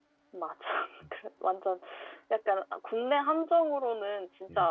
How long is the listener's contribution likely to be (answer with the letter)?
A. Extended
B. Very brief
B